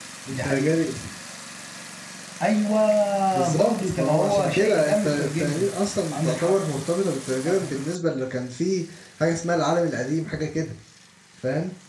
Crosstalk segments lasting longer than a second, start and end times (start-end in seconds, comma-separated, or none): 3.5-5.7